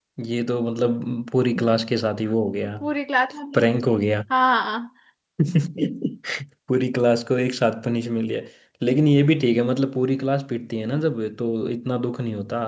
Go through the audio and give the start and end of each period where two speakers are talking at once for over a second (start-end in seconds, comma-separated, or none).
none